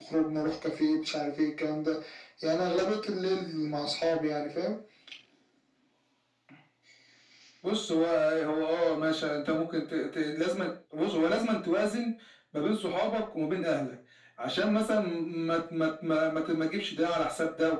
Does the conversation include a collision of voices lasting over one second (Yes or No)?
No